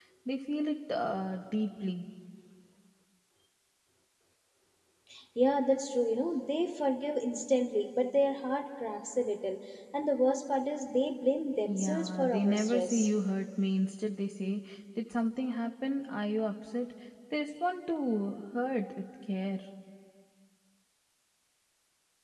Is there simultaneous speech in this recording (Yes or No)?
Yes